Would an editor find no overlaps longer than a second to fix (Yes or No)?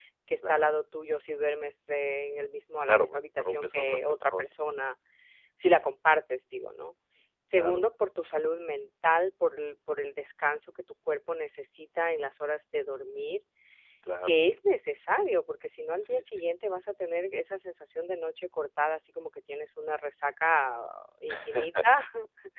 No